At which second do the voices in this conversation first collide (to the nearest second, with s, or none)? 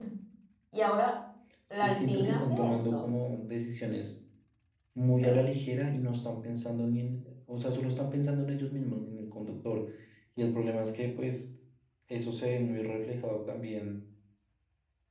2 s